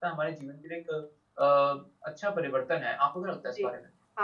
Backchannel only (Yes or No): No